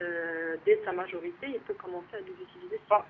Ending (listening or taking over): taking over